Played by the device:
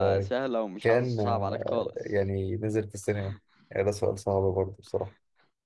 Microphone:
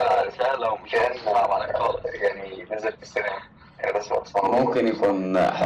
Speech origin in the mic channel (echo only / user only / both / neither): both